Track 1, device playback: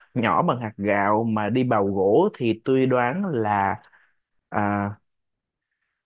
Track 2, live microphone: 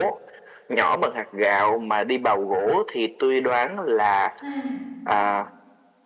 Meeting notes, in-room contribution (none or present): present